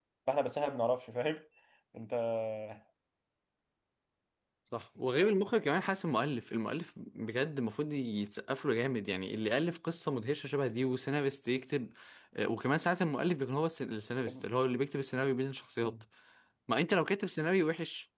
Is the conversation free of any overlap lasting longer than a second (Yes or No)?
Yes